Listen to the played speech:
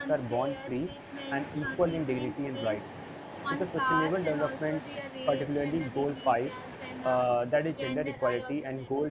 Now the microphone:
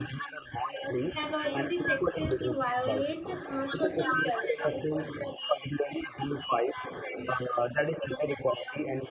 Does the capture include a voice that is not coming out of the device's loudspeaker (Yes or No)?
Yes